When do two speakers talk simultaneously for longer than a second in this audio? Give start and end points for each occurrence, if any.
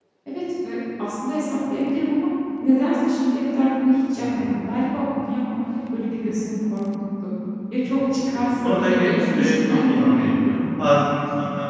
8.3-10.6

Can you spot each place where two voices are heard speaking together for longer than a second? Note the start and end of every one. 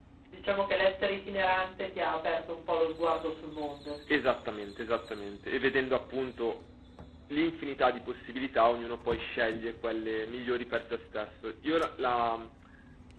none

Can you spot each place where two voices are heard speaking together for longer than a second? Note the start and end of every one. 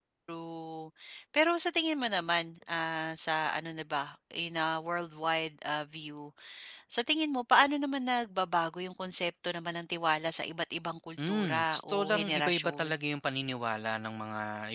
11.3-12.9

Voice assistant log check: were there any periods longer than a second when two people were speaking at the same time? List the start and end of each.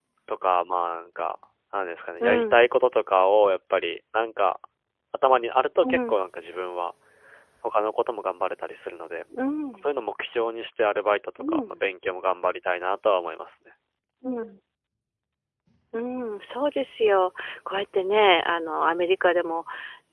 none

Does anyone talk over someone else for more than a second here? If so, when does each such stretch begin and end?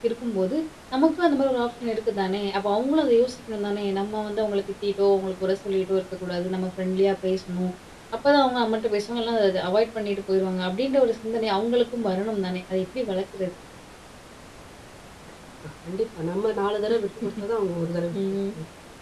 none

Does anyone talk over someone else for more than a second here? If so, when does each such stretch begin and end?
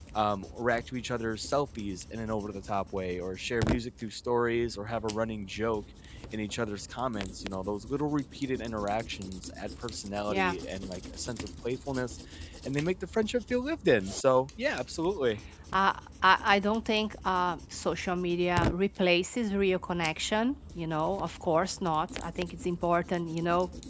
none

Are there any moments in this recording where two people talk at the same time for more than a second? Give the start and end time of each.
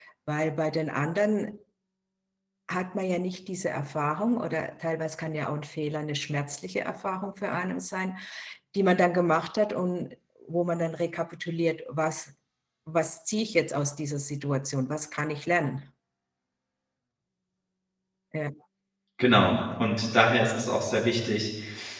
none

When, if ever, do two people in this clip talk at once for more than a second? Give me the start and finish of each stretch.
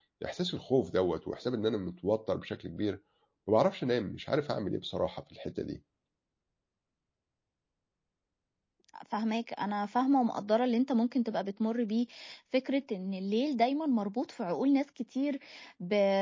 none

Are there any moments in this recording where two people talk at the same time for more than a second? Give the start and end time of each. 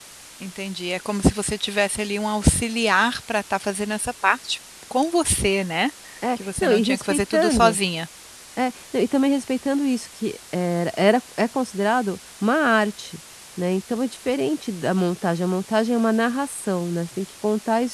6.4-7.8

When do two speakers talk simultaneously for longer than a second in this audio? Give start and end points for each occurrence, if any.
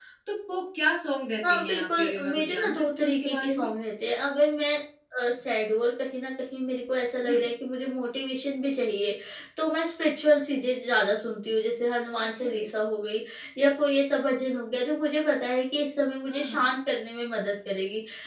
1.5-3.7

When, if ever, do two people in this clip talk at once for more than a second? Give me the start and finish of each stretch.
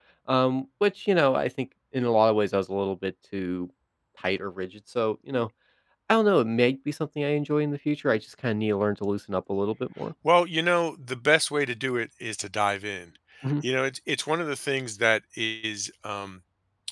none

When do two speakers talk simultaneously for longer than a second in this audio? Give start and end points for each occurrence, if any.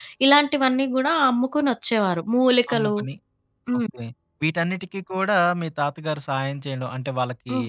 none

